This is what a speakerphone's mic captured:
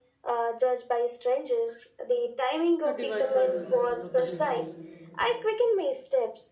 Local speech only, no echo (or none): The device now uses you know, culinary